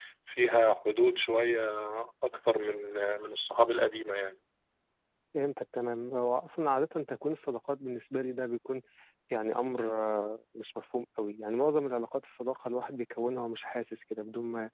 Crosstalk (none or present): none